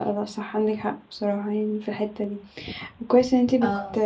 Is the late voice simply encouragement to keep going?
Yes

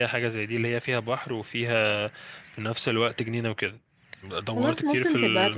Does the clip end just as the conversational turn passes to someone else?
Yes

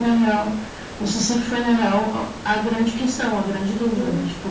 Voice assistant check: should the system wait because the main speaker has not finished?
Yes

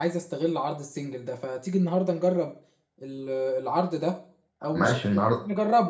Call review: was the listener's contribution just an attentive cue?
Yes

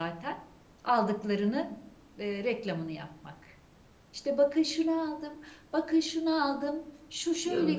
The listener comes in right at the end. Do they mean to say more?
Yes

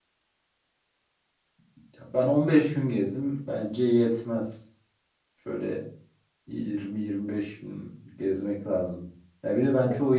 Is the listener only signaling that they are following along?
Yes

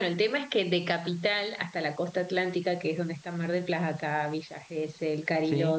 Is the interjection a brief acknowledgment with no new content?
Yes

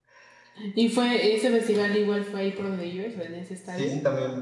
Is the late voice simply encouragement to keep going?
No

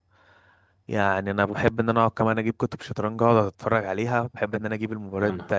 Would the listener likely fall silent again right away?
Yes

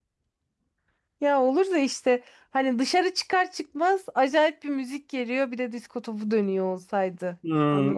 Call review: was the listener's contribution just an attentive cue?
No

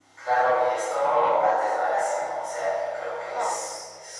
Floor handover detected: No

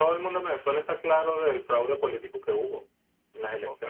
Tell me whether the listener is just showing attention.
No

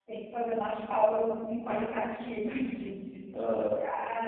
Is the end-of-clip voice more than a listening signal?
No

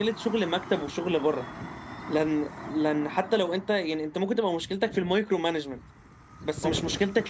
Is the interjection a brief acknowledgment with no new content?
Yes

